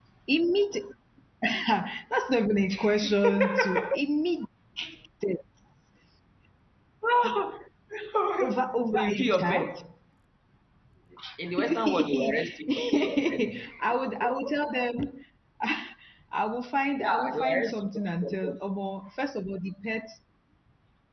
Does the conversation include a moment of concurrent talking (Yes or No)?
Yes